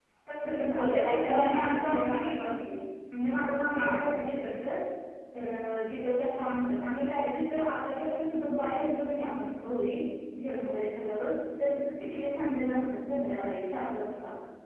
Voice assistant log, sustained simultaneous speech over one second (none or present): present